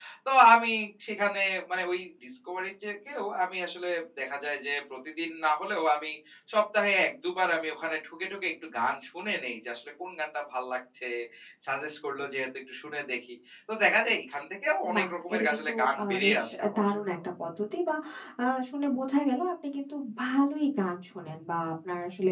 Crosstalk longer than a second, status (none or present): present